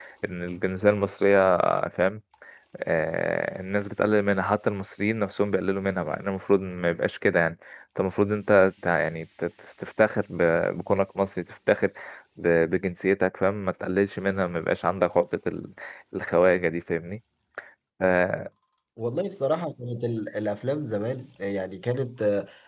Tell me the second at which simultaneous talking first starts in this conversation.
none

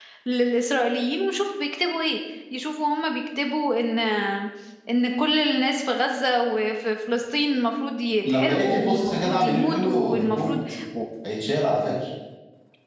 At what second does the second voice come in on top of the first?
8.2 s

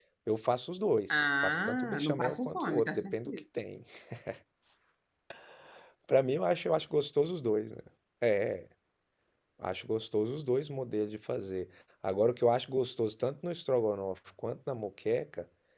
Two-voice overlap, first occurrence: 1.1 s

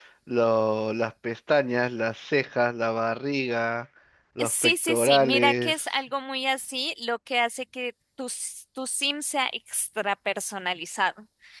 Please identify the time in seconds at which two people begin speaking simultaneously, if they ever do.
4.5 s

